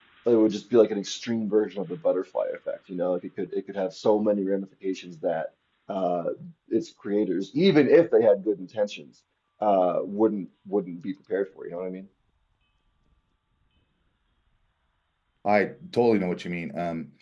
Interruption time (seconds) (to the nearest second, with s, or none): none